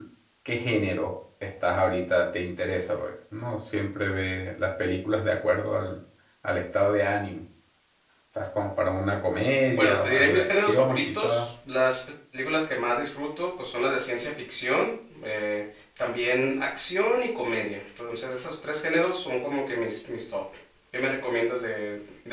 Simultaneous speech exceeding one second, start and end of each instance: 9.7-11.5

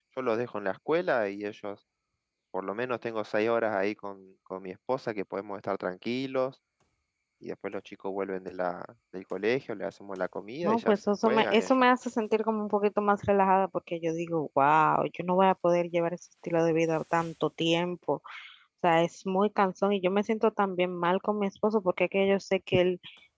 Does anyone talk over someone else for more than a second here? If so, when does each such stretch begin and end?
10.6-11.8

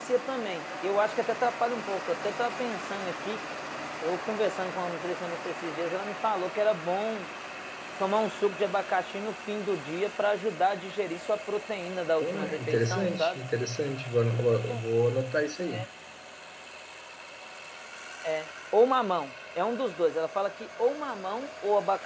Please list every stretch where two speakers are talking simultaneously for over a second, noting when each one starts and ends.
12.2-13.4

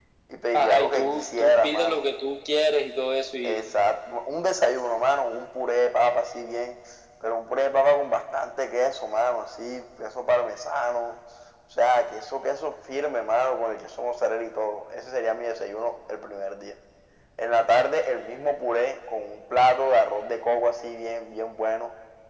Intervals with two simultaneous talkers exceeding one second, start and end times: 0.5-2.1

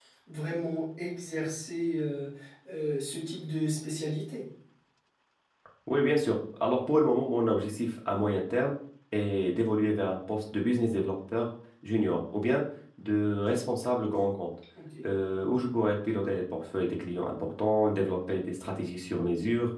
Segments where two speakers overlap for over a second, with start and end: none

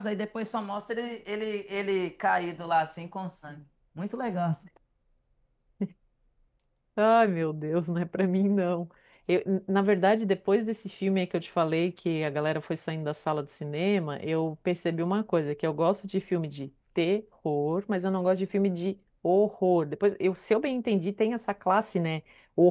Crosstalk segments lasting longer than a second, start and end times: none

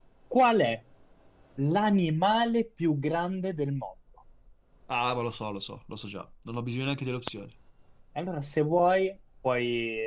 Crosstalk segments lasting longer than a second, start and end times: none

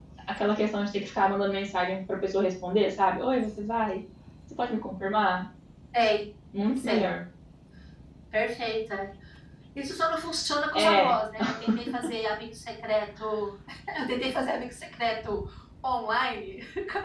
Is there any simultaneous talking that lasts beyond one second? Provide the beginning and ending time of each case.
none

